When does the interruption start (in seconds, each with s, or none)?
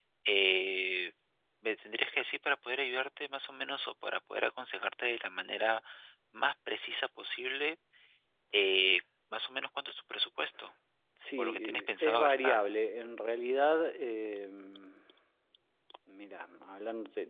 11.4 s